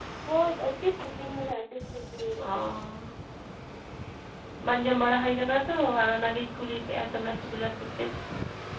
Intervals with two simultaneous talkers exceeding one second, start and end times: none

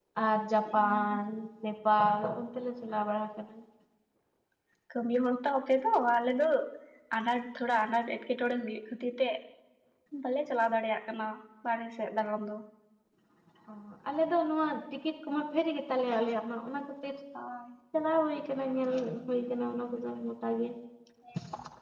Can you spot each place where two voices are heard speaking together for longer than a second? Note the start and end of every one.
none

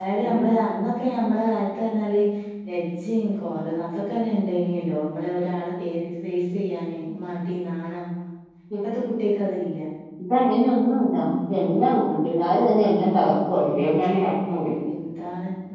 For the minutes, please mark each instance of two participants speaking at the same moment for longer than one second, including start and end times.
none

